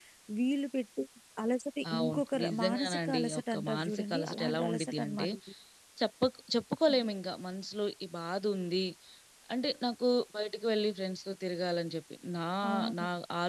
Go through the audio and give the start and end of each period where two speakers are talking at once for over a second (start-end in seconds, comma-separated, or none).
1.9-5.3